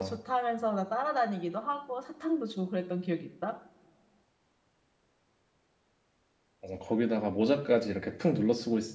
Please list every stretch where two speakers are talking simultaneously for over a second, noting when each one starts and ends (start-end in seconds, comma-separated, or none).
none